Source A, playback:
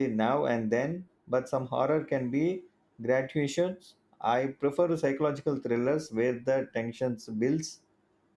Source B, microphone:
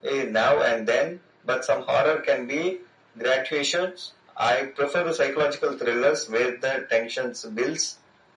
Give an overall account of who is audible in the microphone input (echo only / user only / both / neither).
echo only